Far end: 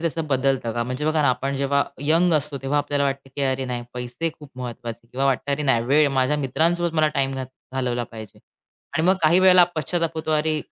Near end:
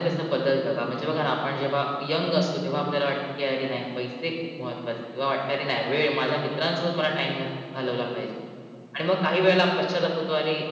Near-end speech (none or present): none